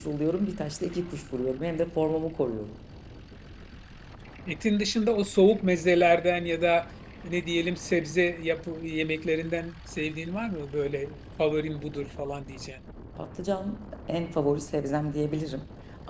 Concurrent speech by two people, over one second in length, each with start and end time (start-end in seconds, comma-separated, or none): none